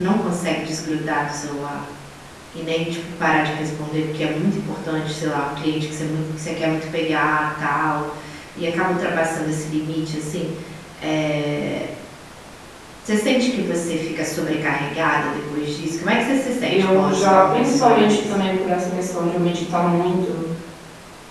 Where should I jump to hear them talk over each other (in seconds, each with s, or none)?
16.6 s